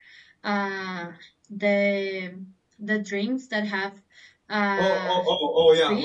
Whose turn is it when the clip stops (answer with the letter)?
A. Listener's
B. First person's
A